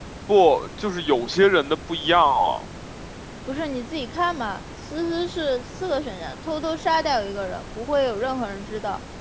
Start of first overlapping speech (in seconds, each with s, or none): none